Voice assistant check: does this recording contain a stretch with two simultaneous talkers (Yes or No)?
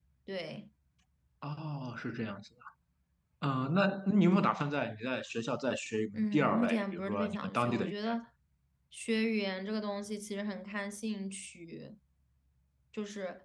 Yes